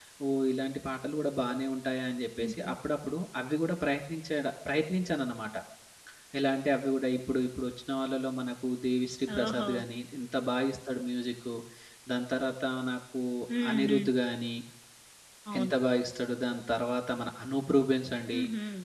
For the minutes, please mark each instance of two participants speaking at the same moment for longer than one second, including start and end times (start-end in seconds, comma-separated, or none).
none